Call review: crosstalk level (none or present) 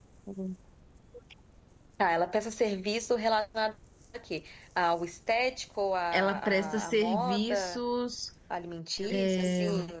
present